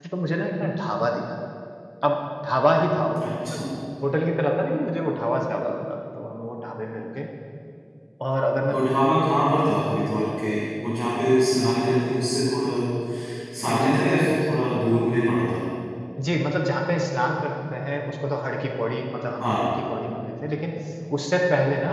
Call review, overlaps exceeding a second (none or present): none